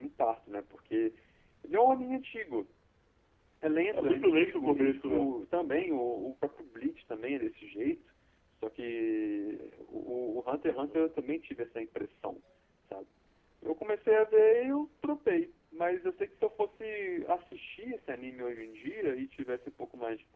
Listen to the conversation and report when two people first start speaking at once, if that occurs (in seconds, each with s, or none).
3.9 s